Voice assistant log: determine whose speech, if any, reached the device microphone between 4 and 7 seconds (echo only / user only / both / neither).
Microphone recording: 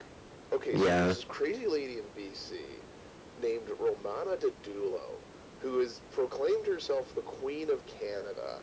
echo only